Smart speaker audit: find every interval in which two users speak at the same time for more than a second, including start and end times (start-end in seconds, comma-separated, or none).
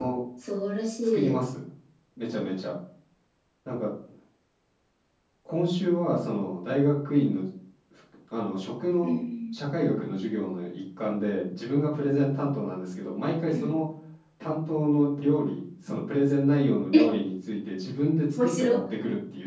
none